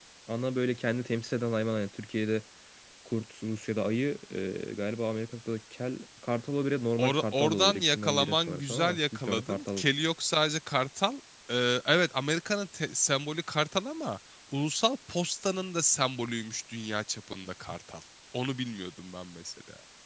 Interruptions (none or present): present